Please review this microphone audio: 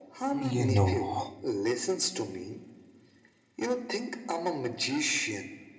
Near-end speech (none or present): present